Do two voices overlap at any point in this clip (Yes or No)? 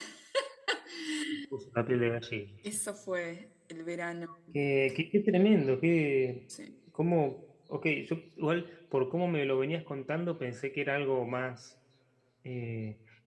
No